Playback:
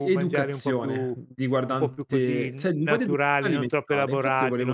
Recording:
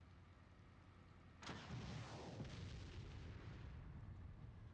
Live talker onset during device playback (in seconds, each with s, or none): none